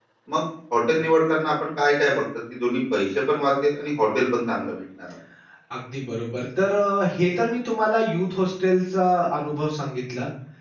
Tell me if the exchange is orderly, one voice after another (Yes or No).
Yes